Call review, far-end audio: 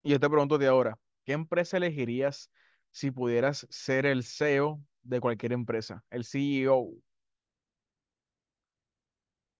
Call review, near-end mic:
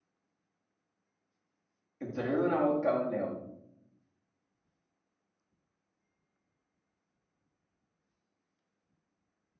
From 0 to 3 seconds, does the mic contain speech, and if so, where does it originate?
user only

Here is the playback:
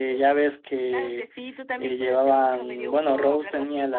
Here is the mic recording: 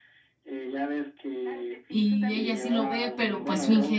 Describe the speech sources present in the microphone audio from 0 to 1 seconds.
echo only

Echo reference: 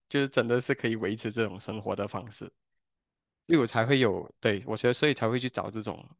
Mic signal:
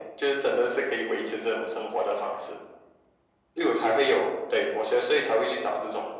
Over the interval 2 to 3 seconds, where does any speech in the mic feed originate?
echo only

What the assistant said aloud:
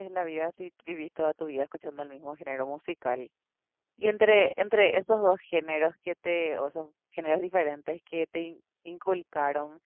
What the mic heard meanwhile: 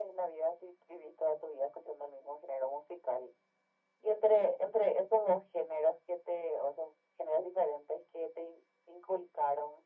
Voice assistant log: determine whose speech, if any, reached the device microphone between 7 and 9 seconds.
echo only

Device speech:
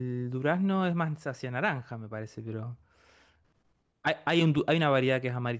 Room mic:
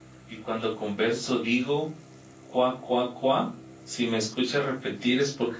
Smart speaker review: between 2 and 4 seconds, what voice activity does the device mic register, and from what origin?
user only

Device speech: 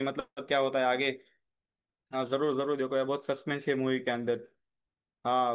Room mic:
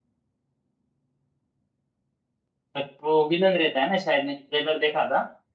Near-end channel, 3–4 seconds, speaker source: user only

